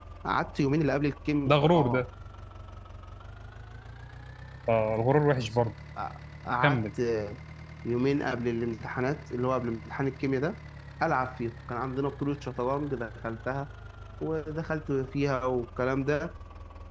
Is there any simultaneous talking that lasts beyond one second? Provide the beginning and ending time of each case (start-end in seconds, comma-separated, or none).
none